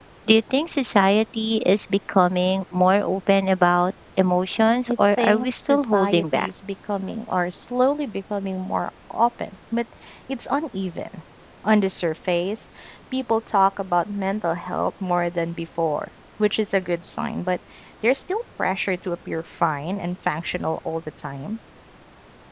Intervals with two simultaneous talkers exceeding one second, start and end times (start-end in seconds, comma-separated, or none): 4.9-6.5